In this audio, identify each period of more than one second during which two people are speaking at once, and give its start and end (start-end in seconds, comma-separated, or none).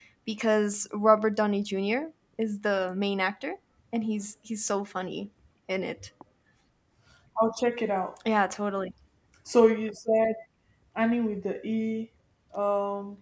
none